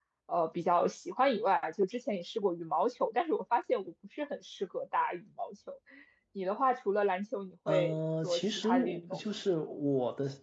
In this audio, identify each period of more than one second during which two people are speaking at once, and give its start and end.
7.7-9.2

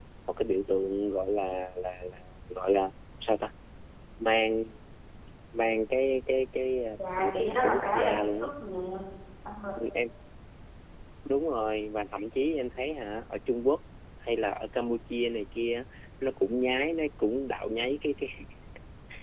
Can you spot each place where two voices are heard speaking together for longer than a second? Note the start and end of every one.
7.0-8.5

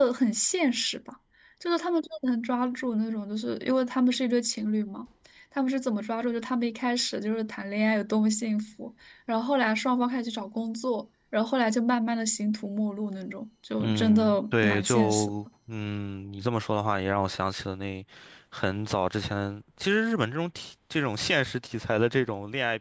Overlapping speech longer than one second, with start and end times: 13.8-15.3

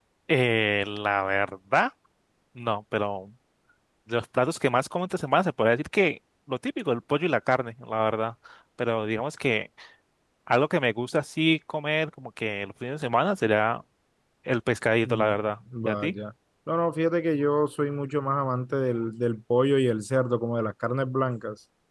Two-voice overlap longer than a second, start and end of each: none

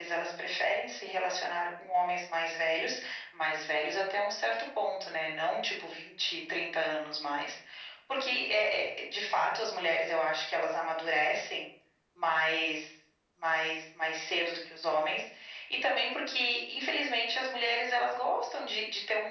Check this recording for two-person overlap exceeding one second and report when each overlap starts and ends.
none

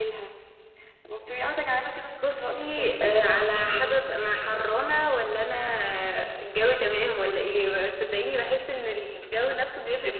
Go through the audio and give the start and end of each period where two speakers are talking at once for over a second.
2.2-4.0

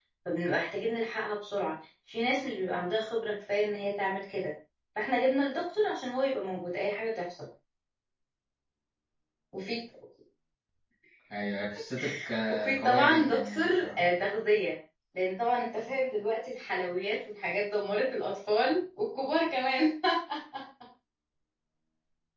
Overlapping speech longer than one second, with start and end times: 12.5-14.0

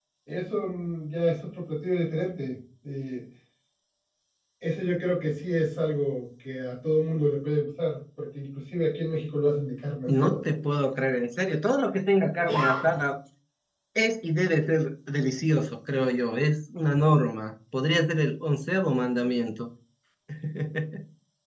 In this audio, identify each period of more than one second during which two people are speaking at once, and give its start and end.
none

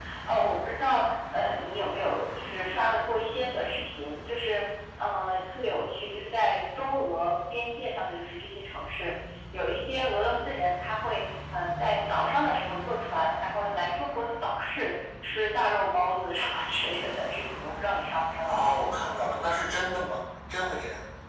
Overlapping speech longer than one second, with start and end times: none

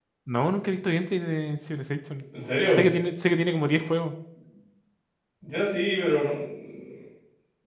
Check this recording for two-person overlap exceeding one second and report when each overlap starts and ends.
none

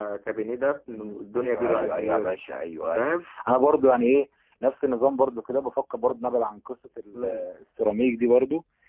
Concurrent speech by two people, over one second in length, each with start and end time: 0.9-2.4

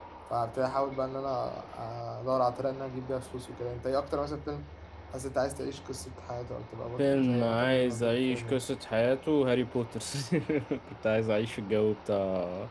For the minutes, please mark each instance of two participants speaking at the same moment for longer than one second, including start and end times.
7.0-8.6

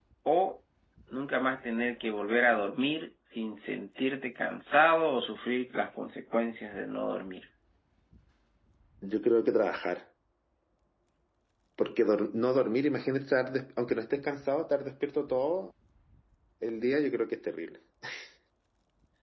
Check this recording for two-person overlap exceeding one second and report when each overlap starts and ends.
none

